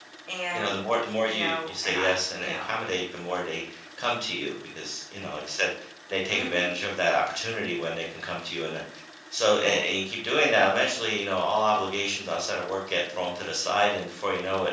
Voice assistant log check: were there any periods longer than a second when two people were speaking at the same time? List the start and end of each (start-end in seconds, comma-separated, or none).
1.3-2.7